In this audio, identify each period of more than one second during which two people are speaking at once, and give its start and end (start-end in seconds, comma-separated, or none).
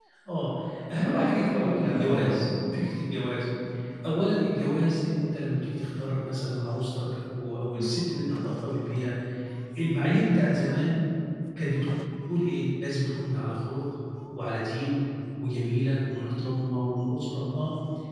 0.9-2.5